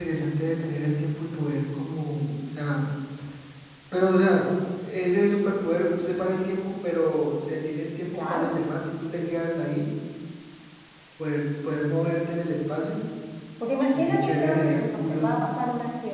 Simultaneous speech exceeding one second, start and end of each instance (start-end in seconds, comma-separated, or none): 13.9-15.4